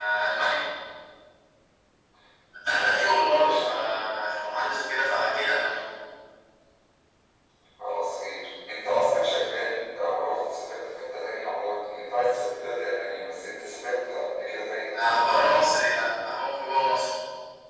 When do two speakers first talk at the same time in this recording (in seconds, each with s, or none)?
2.7 s